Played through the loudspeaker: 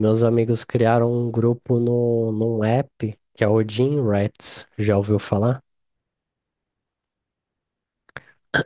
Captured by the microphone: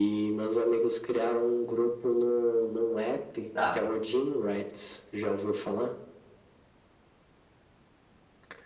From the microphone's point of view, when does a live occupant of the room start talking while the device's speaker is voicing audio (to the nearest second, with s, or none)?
4 s